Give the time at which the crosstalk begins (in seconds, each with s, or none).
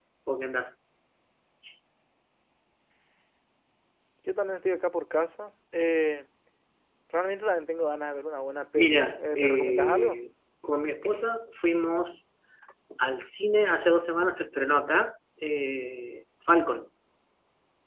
8.8 s